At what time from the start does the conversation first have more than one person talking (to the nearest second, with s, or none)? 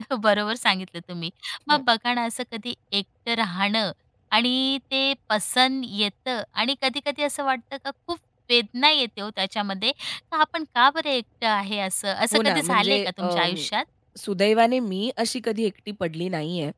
12 s